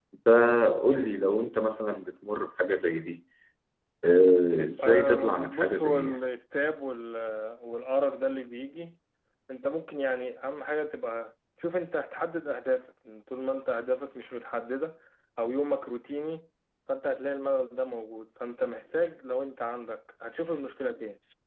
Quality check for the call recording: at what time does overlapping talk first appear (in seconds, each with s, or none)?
4.8 s